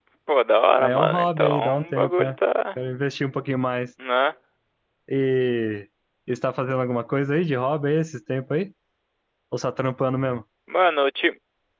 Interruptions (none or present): present